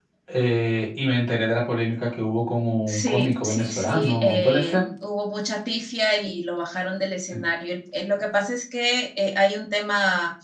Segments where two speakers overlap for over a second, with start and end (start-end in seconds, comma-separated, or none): 2.9-4.8